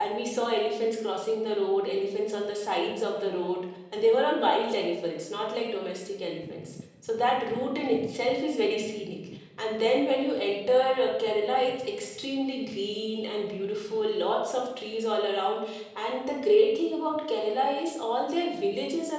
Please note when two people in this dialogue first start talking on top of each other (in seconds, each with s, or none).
none